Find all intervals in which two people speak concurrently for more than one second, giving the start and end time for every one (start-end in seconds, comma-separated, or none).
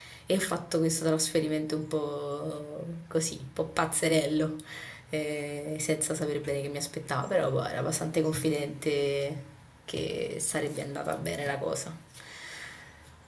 none